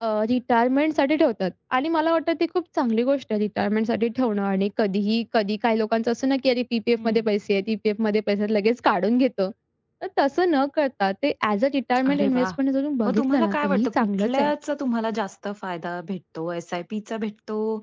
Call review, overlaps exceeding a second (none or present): present